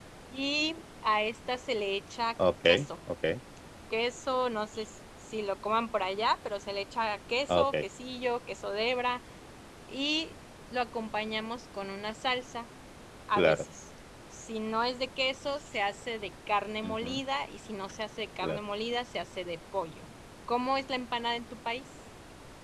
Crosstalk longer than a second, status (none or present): none